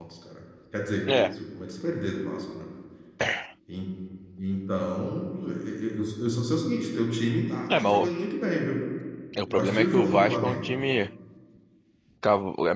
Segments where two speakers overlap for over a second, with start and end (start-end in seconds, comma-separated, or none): 9.5-10.7